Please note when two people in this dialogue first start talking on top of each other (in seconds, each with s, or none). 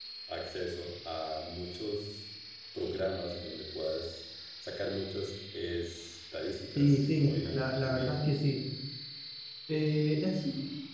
6.8 s